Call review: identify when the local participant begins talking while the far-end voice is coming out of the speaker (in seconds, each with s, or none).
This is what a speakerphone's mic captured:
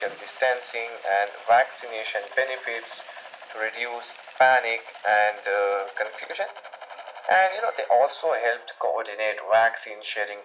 none